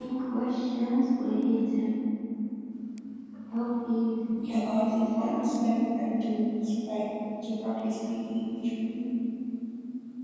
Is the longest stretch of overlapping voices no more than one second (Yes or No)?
No